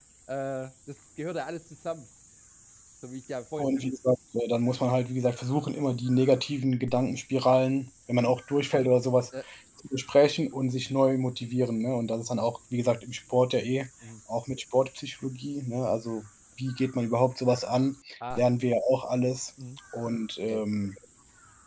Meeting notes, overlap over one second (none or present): none